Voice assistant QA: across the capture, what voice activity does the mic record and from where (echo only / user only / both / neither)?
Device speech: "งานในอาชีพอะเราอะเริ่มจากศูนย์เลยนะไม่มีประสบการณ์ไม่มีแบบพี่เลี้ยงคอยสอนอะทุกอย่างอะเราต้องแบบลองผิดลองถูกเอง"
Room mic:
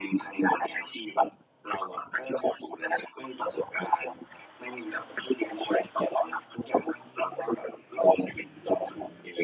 echo only